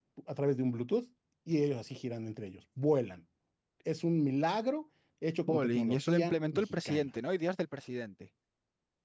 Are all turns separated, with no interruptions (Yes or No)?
No